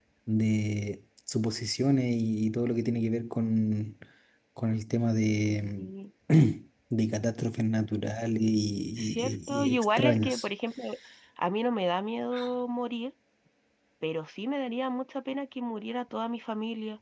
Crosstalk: present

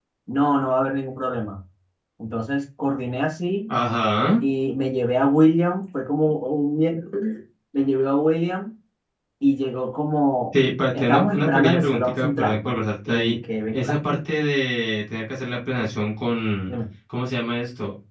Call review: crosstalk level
present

